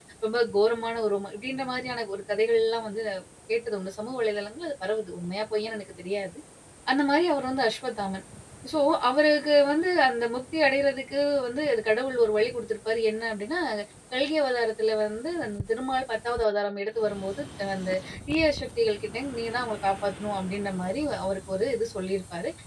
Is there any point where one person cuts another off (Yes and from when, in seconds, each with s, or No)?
No